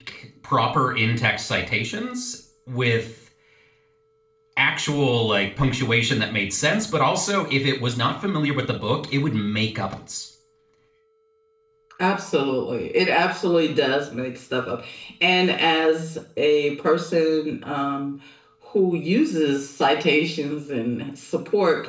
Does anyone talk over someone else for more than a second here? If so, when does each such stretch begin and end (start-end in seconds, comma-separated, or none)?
none